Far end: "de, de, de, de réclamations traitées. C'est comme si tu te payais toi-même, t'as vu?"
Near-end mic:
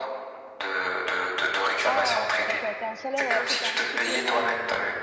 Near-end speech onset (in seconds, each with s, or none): 1.8 s